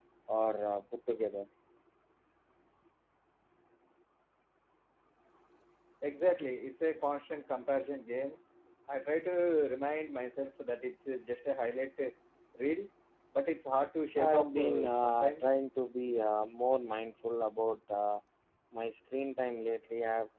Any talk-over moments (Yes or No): Yes